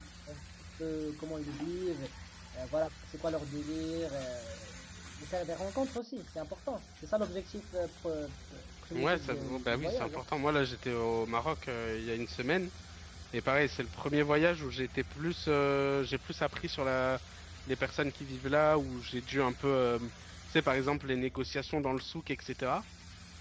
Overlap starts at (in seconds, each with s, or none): 8.9 s